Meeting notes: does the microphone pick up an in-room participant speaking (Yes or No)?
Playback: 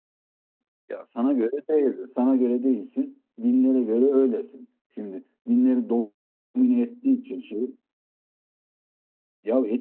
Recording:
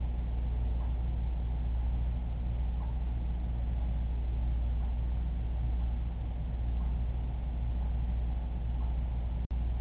No